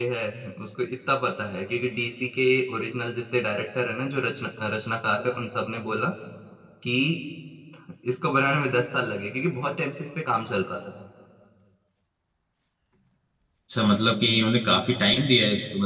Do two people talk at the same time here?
No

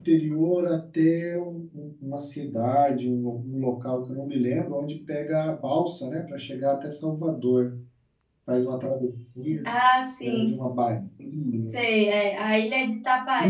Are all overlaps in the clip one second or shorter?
Yes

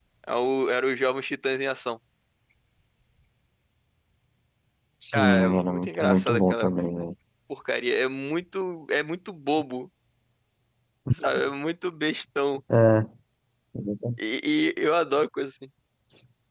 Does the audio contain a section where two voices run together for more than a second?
Yes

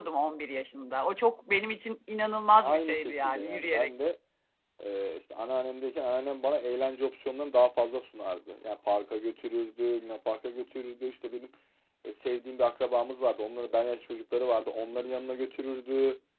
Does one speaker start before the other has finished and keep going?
Yes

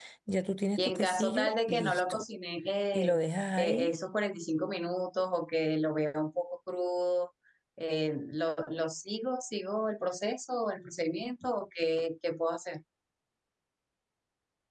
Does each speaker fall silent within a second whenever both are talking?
No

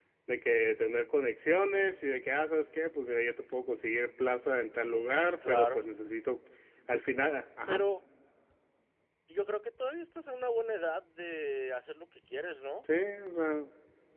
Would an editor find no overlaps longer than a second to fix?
Yes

